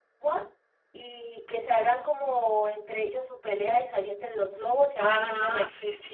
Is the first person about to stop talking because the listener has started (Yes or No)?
Yes